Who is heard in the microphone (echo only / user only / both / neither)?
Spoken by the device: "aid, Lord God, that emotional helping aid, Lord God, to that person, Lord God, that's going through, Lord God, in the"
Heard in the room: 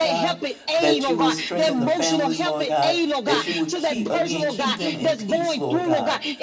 both